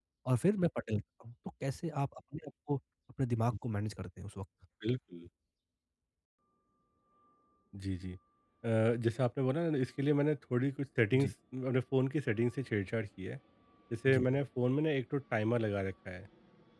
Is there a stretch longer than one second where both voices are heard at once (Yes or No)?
No